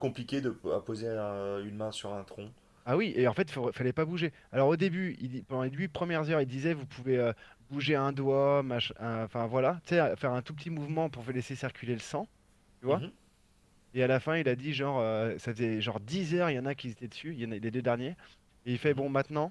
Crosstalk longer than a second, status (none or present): none